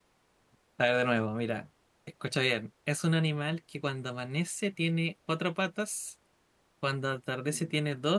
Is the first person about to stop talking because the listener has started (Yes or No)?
No